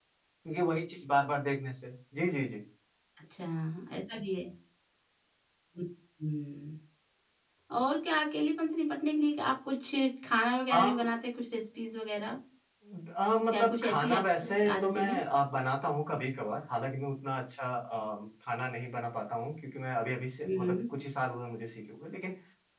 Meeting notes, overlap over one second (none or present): present